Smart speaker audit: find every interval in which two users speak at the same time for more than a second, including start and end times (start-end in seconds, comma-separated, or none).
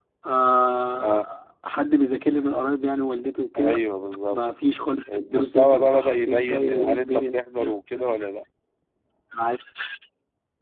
5.1-7.4